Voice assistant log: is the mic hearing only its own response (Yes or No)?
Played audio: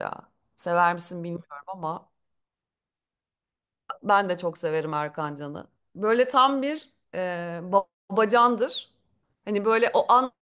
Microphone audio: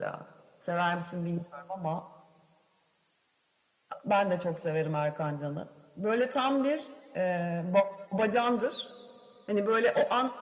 Yes